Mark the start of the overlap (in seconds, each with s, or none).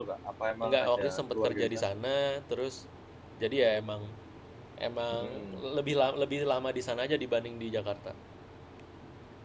0.6 s